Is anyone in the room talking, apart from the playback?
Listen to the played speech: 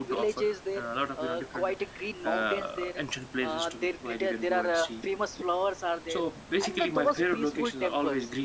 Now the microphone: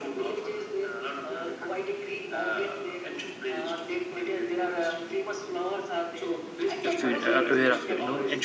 Yes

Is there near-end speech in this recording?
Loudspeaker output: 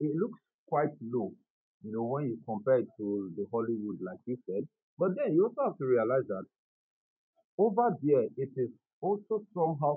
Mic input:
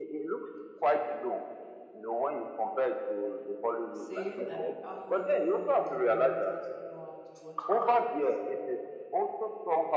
Yes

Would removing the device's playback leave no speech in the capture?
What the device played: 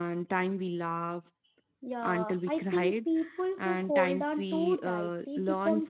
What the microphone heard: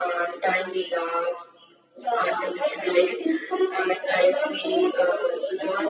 Yes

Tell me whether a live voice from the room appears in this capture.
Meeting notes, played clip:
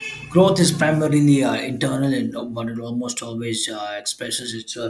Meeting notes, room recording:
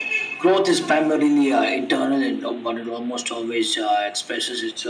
No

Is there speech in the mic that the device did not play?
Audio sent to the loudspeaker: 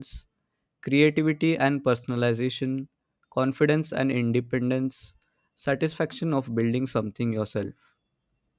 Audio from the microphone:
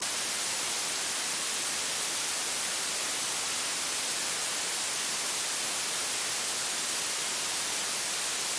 No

